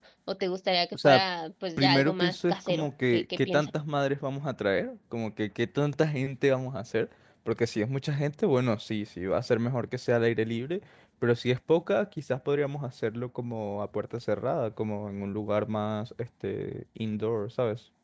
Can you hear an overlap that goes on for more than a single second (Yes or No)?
Yes